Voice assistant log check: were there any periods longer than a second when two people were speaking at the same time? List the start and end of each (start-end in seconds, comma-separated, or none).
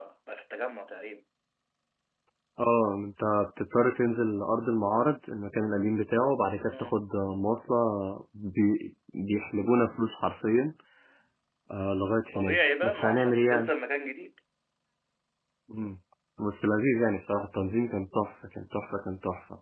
12.3-13.7